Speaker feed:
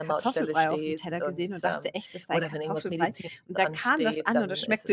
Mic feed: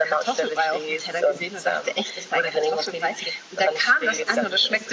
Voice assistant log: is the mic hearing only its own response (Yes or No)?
Yes